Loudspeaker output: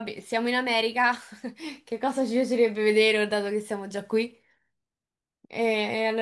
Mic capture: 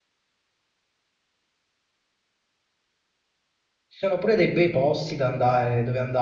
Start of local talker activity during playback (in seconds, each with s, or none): 3.9 s